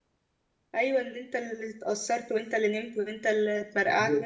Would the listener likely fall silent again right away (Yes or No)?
No